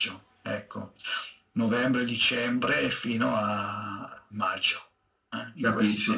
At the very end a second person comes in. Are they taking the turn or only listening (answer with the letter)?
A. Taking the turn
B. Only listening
A